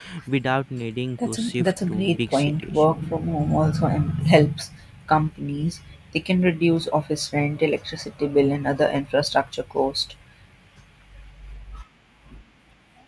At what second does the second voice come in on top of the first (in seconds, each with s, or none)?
1.2 s